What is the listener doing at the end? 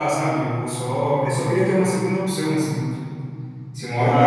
listening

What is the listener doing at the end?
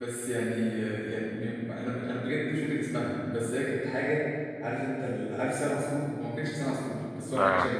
listening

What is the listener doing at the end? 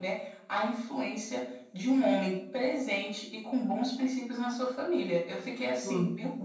listening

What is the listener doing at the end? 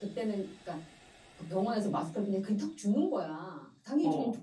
listening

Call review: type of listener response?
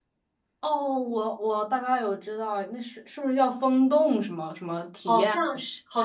taking over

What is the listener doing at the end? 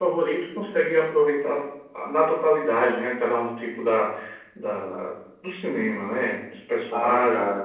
taking over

